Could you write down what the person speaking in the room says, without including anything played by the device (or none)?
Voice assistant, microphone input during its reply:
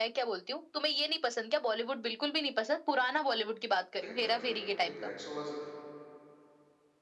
भाई मैं तो ये हूँ भाई गैंग्स ऑफ वासे